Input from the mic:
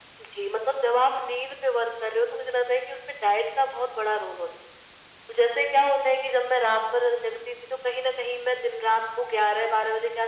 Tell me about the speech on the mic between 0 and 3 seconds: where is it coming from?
echo only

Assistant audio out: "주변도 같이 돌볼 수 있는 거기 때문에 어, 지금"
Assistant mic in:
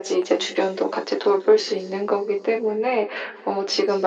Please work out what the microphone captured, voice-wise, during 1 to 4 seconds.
echo only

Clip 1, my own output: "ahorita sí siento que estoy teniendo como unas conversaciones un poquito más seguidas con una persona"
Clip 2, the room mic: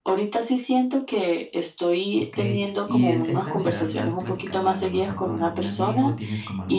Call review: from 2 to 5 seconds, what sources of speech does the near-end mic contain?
both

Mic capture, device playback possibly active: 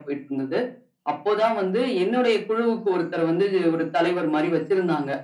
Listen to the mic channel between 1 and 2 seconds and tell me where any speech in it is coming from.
echo only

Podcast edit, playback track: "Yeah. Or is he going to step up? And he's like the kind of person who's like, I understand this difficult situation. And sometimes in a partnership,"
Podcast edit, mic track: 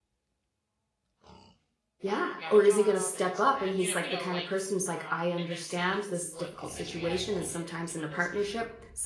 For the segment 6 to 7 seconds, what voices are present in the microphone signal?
both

